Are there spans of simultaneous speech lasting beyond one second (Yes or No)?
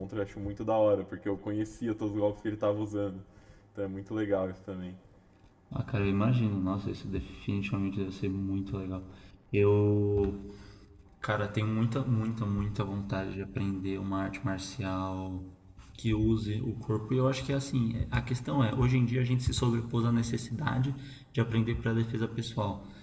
No